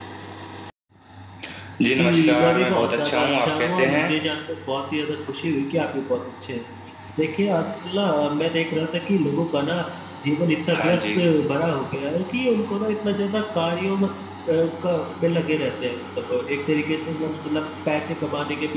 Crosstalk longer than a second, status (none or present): present